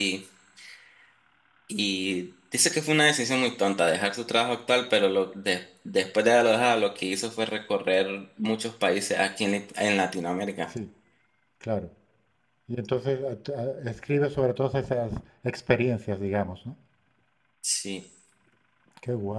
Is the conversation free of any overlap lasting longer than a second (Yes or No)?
Yes